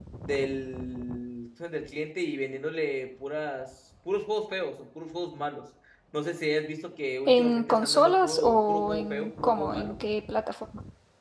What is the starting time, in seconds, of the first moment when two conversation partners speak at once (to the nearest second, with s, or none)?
7 s